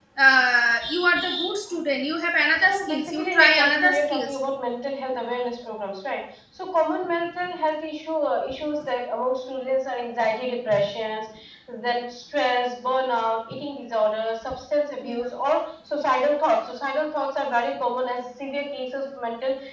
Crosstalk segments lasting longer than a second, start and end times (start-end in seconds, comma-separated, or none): 2.6-4.3